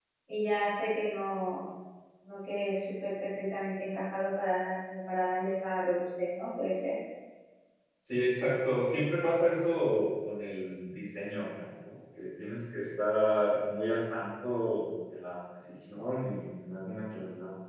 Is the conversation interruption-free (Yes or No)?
Yes